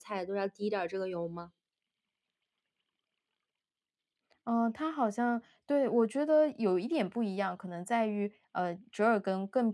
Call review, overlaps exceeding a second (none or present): none